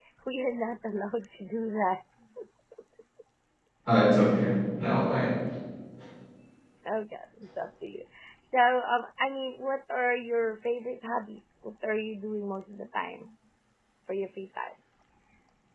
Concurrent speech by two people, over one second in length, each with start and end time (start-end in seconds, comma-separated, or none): none